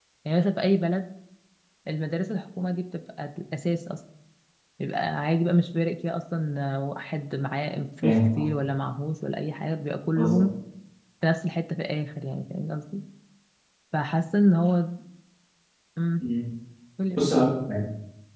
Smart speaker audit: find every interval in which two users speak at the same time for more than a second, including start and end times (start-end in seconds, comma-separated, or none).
none